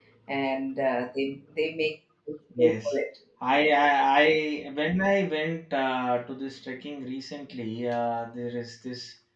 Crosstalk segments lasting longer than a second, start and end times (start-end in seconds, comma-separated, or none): none